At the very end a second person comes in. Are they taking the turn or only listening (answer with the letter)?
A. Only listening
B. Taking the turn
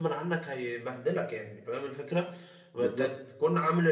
A